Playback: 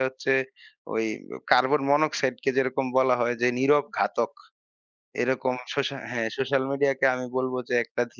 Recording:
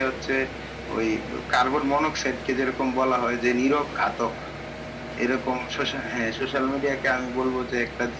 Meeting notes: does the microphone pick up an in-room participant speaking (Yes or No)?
No